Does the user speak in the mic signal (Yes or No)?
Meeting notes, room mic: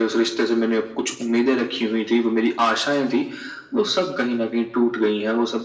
No